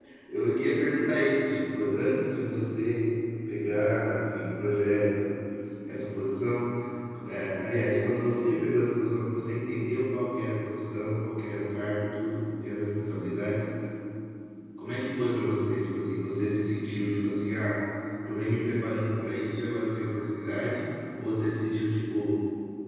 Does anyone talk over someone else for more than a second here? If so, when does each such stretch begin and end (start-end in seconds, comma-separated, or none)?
none